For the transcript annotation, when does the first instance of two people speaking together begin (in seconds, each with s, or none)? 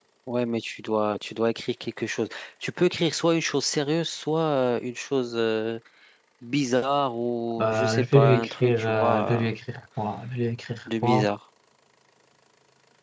7.6 s